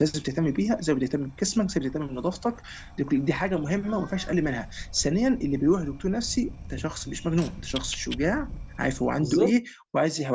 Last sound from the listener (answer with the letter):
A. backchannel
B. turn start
A